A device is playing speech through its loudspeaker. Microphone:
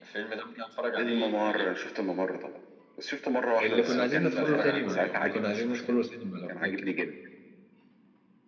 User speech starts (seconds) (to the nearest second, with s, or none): 4 s